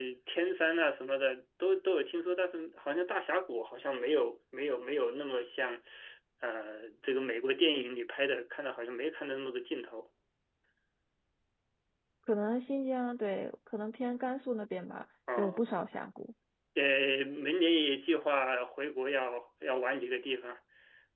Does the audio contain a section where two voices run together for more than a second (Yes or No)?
No